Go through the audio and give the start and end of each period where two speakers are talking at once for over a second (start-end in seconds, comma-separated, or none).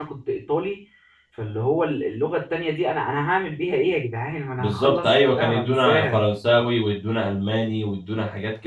4.6-6.2